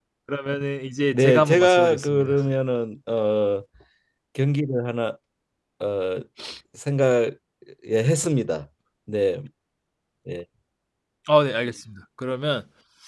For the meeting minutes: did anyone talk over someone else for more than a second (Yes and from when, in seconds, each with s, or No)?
Yes, from 1.1 s